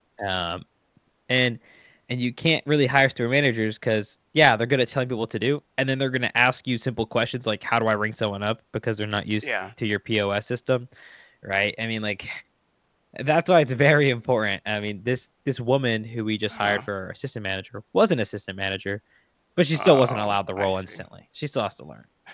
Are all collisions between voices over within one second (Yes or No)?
No